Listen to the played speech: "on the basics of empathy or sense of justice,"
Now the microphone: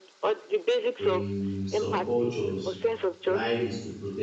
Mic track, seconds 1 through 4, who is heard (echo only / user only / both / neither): both